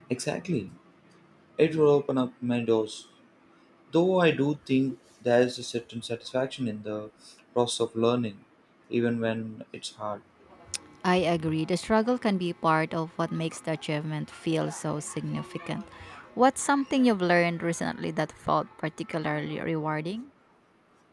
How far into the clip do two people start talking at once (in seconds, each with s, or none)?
none